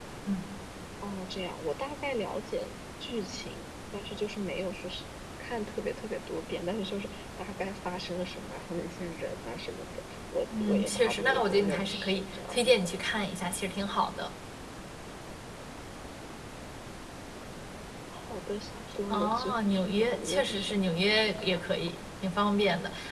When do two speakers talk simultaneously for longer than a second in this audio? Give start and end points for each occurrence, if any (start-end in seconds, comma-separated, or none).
10.6-12.6, 19.1-21.6